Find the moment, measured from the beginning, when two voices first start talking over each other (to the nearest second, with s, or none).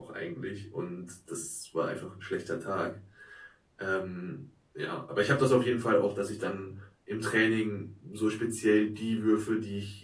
none